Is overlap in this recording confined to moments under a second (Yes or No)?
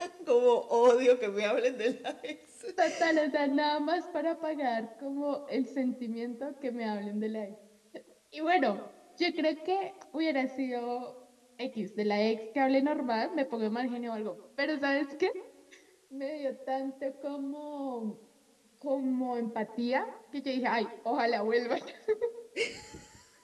Yes